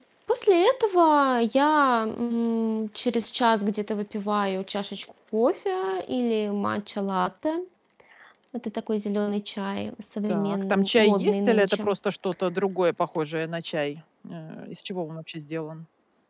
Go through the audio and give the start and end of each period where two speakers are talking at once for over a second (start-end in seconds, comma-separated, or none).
10.3-11.9